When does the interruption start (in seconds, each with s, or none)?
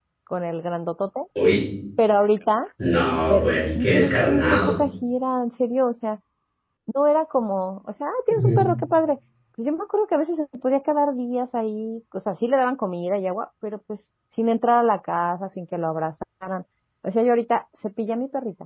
3.3 s